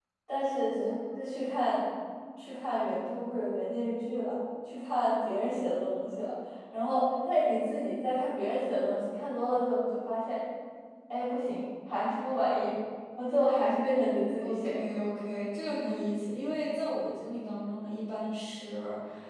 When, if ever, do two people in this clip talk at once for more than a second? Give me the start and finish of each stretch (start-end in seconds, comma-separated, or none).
none